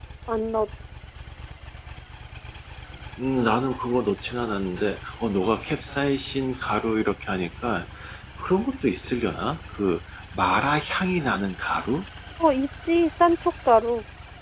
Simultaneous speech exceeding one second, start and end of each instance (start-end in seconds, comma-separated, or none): none